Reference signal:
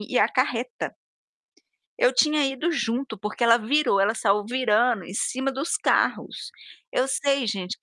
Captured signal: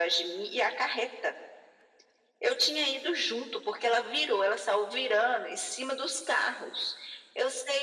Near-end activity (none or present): none